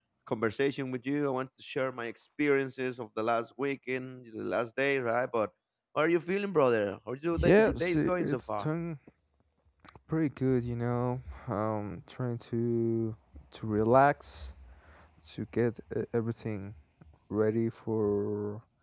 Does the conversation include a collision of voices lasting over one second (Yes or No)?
Yes